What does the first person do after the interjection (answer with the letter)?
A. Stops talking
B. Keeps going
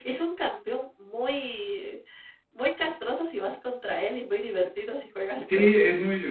A